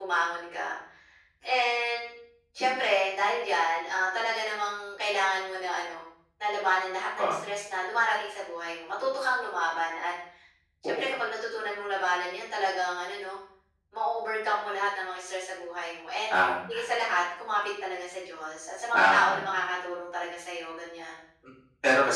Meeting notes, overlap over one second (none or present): none